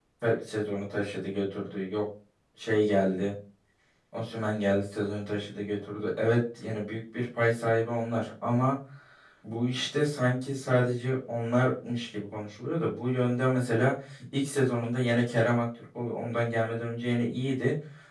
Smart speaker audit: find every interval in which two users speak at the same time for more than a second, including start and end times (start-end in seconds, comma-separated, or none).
none